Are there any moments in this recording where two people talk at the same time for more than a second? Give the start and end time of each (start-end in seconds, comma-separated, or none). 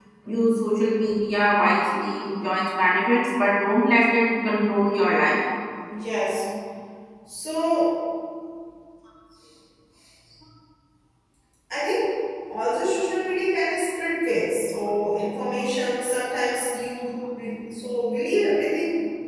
none